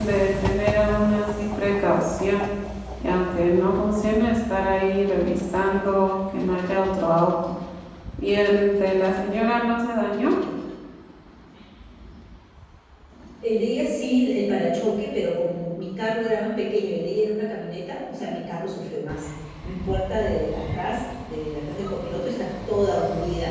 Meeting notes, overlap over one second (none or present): none